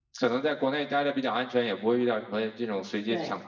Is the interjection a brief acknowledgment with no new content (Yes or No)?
Yes